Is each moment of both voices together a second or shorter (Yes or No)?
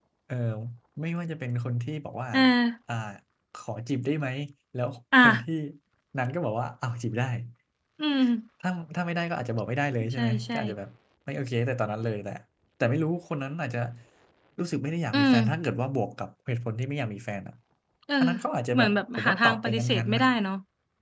No